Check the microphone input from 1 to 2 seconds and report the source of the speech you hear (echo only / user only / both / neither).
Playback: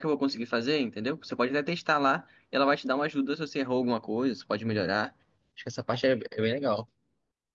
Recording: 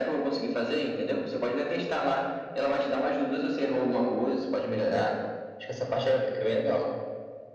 echo only